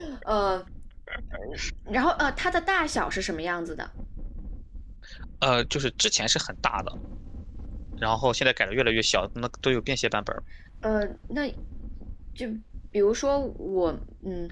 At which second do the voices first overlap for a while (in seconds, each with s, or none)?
none